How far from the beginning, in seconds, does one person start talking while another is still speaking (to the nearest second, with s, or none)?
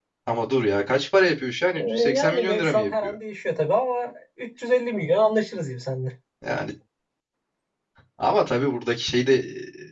2 s